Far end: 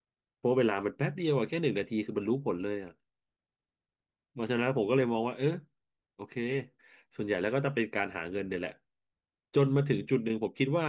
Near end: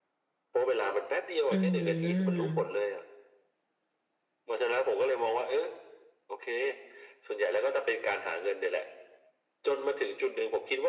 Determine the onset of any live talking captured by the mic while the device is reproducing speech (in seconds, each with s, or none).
1.5 s